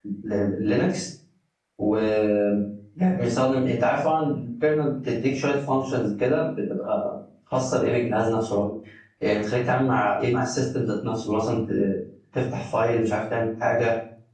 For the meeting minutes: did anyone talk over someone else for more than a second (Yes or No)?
No